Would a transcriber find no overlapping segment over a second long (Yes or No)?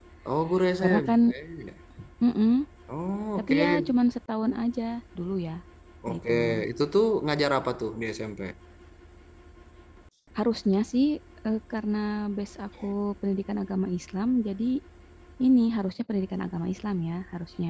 Yes